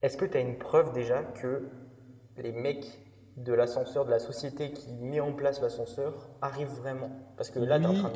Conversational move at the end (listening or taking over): taking over